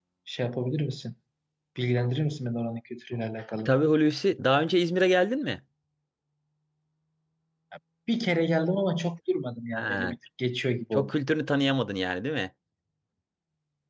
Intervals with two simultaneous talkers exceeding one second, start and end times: none

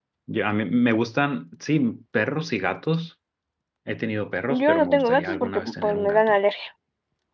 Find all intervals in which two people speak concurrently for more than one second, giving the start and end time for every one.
4.5-6.4

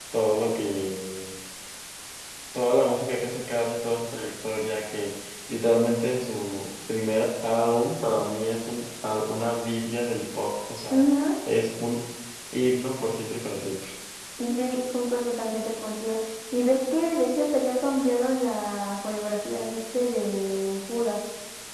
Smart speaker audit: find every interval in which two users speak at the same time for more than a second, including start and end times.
none

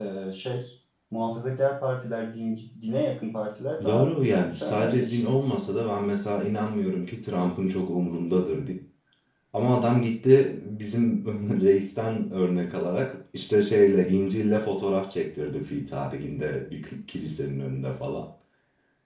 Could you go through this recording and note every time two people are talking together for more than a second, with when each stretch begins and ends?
3.9-5.2

